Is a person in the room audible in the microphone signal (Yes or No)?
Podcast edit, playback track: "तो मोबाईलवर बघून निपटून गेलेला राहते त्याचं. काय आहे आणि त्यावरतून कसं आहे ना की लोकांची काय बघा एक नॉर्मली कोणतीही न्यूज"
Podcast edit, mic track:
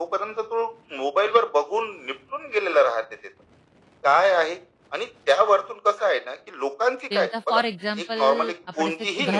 Yes